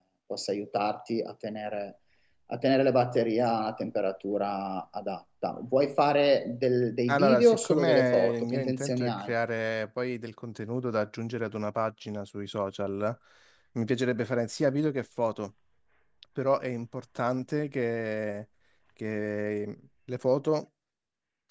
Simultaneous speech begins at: 7.1 s

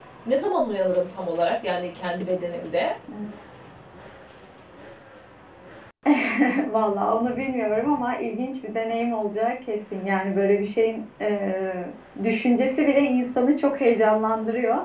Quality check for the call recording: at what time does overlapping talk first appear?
none

